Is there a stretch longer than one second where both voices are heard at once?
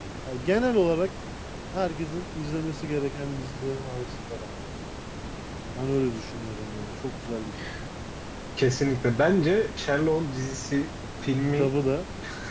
No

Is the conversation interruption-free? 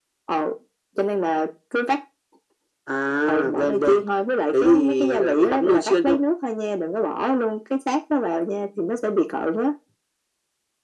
No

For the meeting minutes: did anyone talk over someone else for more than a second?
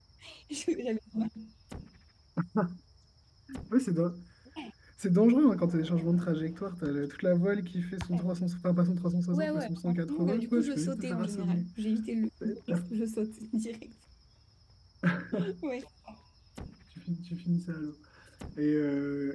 Yes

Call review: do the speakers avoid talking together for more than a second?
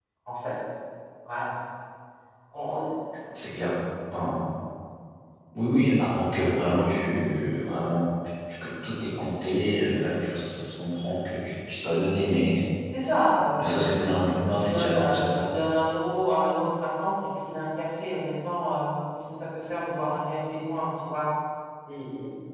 No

